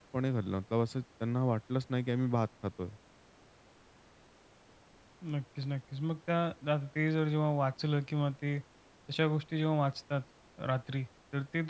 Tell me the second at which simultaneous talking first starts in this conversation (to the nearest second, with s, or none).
none